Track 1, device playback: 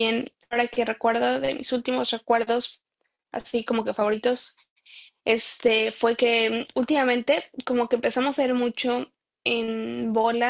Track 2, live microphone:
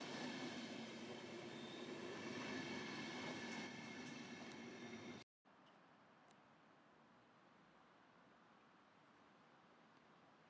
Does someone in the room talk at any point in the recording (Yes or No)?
No